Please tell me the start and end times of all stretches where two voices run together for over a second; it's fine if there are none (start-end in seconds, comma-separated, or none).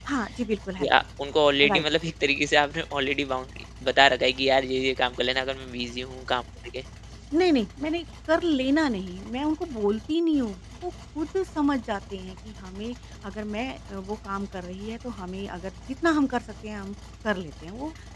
none